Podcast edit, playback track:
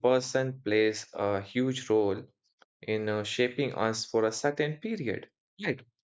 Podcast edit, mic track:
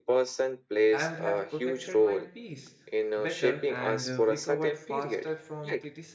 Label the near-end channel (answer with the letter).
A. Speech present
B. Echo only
A